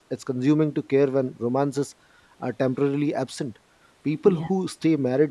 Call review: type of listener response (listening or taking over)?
listening